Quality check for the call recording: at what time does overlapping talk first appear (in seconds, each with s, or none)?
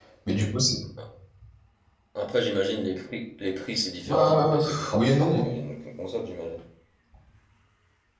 4.0 s